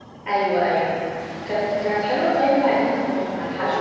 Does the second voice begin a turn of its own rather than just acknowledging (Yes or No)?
Yes